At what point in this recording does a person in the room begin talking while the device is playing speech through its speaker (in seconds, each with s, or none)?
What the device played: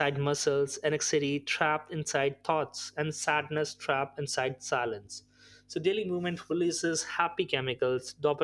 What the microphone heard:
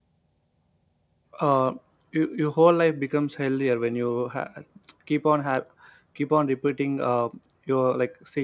1.4 s